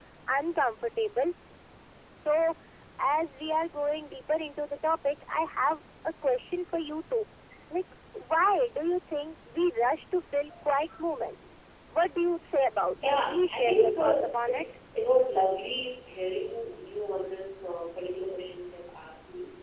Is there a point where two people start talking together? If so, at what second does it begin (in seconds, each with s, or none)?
13.0 s